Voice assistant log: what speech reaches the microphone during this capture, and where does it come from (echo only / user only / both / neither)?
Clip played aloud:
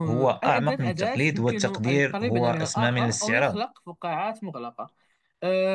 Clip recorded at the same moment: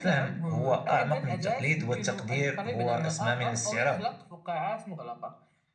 echo only